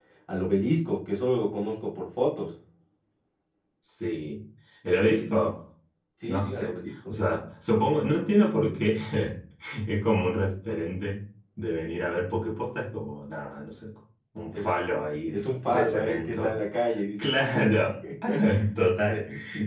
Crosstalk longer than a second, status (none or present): present